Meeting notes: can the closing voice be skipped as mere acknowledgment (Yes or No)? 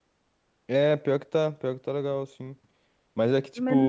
Yes